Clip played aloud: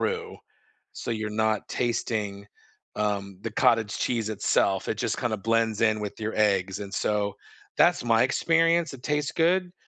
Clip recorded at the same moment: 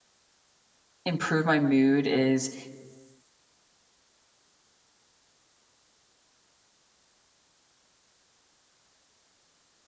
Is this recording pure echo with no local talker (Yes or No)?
No